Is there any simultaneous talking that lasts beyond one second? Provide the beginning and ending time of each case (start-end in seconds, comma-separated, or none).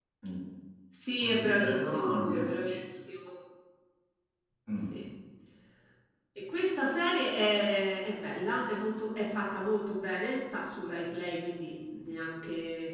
1.2-2.5